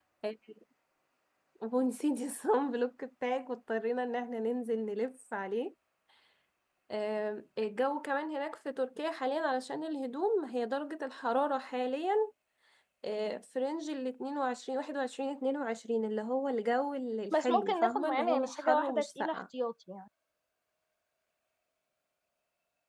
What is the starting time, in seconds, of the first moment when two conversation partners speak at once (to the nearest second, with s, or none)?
17 s